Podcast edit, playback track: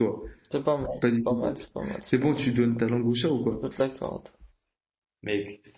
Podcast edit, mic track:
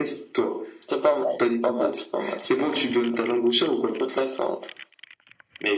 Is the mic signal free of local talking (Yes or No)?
Yes